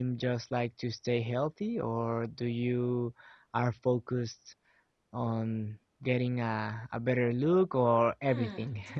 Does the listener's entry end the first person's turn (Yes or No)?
Yes